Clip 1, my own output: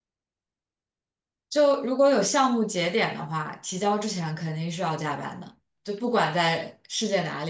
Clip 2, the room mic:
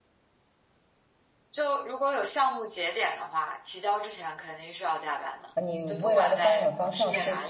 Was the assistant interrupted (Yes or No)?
Yes